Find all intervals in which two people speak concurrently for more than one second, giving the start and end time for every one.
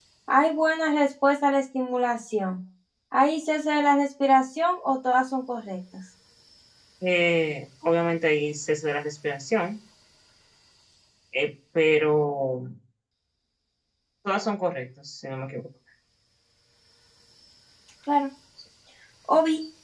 none

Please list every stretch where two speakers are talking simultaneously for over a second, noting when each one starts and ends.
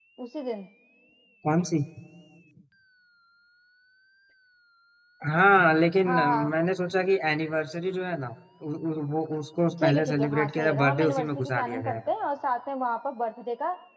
9.8-12.0

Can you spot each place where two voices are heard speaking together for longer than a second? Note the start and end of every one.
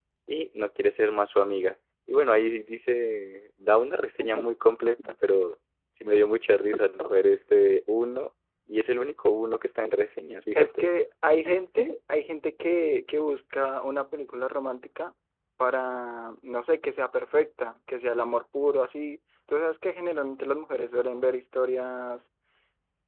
none

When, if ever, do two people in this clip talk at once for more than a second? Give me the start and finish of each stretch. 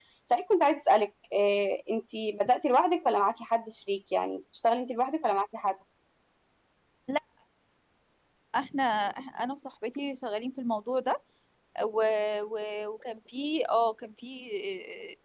none

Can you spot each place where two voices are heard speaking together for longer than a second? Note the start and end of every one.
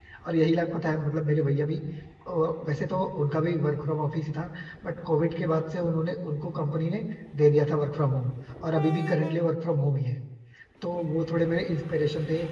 none

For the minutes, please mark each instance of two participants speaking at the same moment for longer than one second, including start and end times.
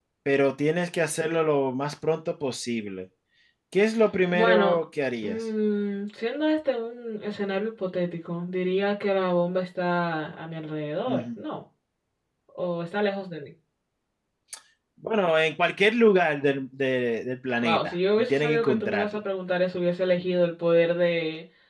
17.6-19.2

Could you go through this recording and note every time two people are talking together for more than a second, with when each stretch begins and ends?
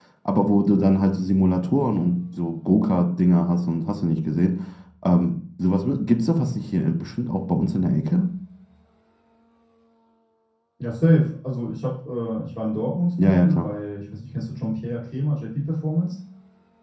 none

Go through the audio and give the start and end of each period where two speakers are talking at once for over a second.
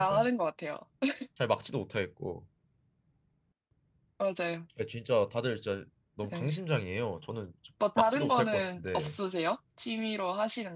8.0-9.2

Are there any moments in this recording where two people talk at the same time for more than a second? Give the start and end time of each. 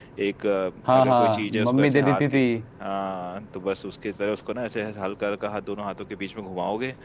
0.9-2.4

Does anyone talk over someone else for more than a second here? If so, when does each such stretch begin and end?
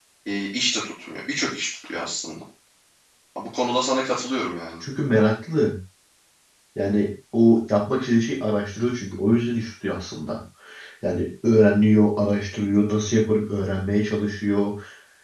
none

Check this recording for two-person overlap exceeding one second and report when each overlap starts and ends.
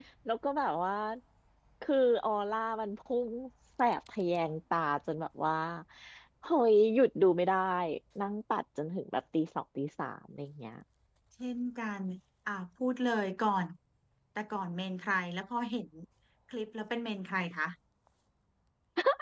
none

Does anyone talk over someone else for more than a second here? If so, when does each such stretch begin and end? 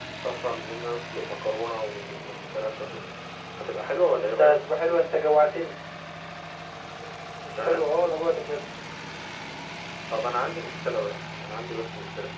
none

